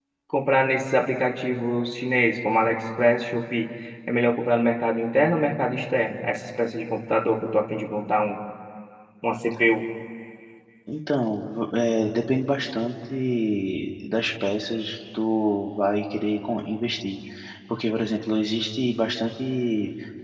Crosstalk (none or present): none